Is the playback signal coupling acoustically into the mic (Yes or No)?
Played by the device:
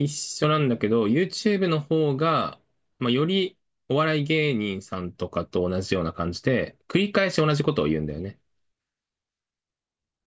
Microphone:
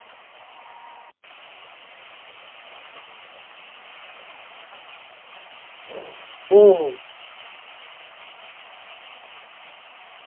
No